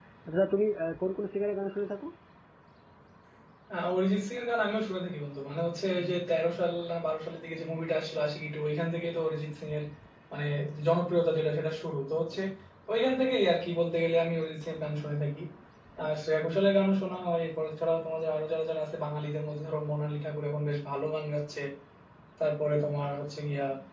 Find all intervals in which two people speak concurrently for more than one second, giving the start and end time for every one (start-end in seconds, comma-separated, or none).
none